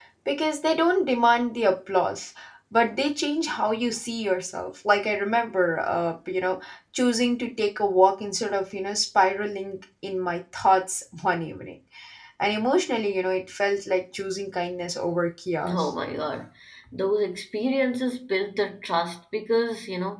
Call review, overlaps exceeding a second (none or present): none